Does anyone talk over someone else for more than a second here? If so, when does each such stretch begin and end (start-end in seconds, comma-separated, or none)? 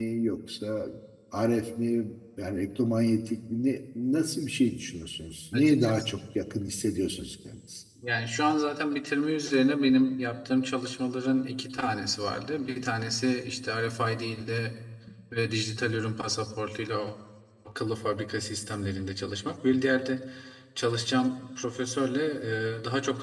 none